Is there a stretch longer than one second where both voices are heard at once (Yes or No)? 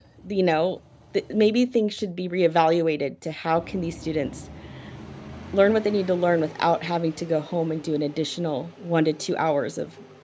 No